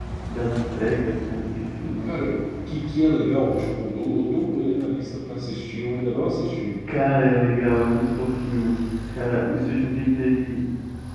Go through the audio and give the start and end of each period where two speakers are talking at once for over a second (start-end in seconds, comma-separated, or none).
none